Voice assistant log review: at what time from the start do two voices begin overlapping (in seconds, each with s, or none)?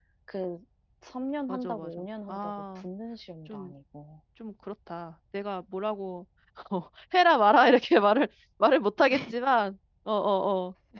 1.5 s